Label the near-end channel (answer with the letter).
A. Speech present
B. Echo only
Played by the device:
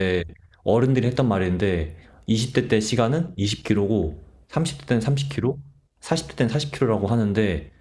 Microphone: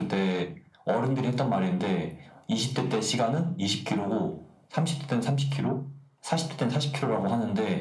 B